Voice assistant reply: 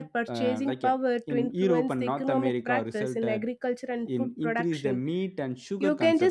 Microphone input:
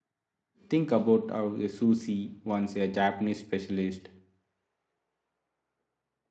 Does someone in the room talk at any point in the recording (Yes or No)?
Yes